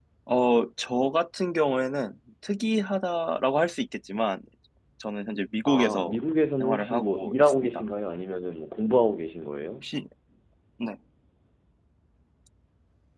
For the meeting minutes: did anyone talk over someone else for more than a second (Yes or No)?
Yes